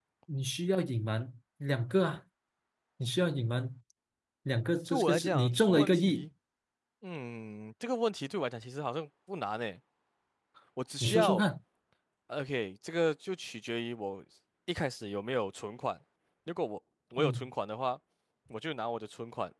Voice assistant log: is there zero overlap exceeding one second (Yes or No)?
No